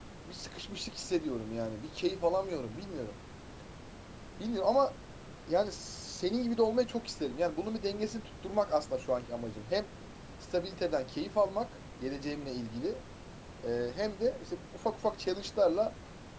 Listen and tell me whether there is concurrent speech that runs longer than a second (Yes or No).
No